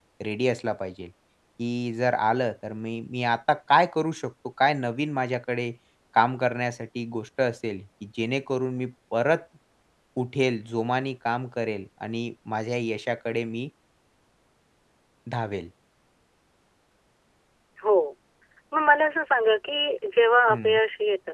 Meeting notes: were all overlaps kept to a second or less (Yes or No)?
Yes